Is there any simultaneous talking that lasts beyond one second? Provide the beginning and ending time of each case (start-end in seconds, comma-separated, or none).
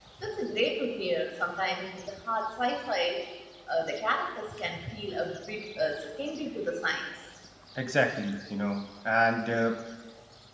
none